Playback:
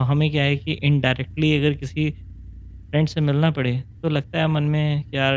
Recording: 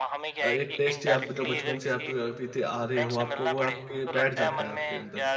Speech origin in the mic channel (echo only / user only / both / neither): both